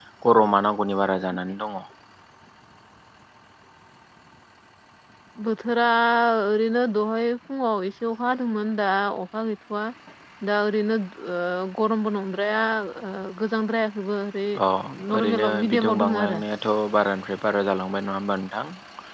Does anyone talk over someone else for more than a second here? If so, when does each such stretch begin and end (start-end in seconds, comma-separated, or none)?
15.2-16.4